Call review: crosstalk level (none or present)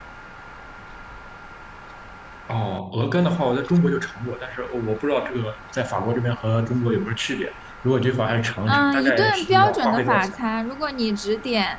present